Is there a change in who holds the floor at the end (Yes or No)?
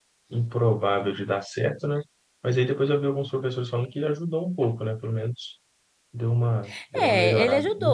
Yes